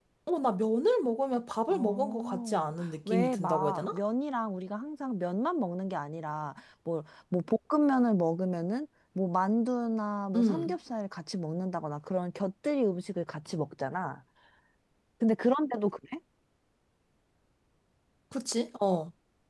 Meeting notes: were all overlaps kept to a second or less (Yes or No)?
No